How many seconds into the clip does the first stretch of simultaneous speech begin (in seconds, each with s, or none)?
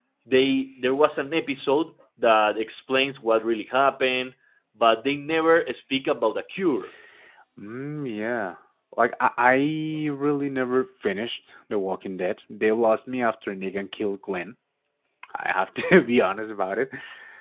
none